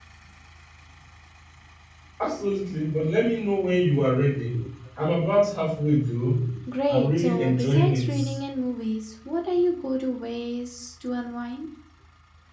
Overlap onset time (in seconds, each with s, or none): 6.9 s